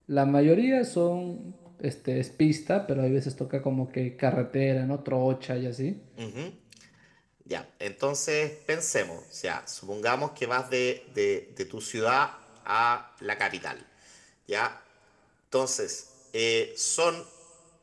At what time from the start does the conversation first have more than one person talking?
none

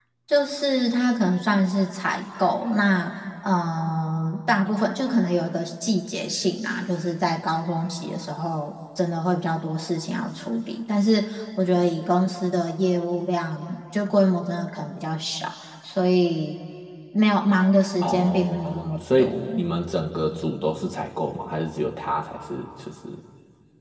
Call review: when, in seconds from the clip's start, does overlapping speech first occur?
18 s

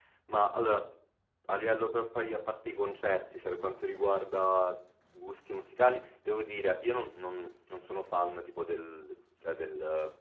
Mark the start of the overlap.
none

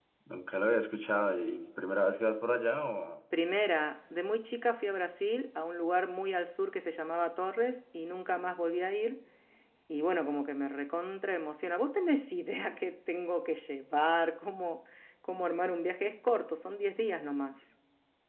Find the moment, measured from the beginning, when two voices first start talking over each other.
none

